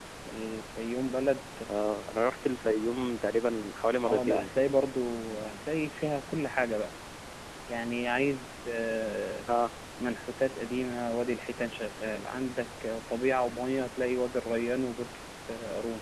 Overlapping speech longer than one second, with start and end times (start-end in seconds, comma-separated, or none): none